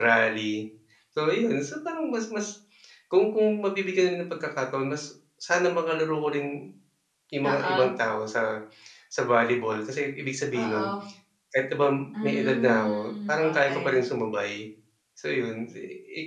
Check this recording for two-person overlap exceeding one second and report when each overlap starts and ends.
12.2-14.0

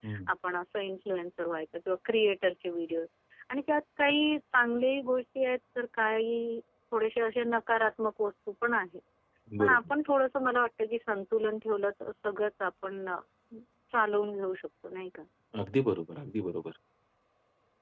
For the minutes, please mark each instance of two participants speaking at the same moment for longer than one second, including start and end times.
none

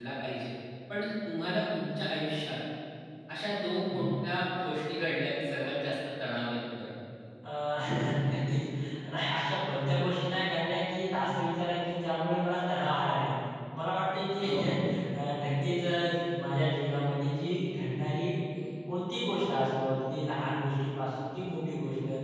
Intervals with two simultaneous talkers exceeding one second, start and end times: none

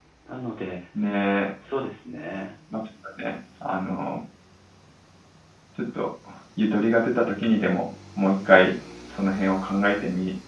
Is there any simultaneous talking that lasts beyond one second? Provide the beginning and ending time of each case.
none

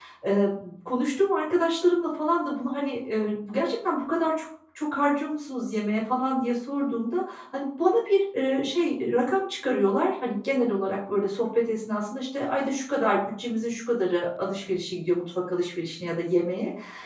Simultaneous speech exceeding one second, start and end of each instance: none

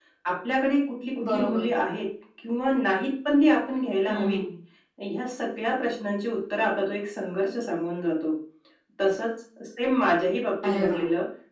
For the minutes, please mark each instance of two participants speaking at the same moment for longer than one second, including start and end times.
none

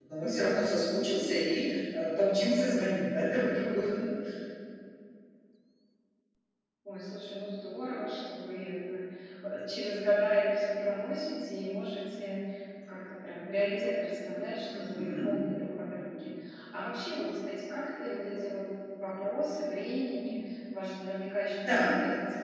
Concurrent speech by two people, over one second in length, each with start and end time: none

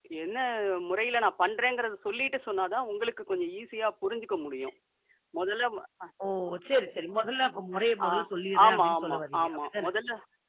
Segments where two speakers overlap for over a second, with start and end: 8.7-9.9

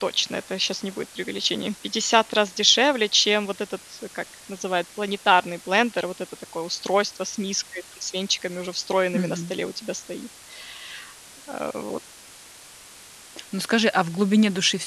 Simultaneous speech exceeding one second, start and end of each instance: none

